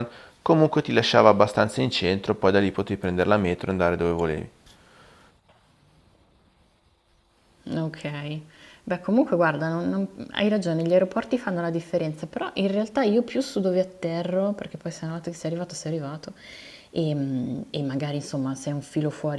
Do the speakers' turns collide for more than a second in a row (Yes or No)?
No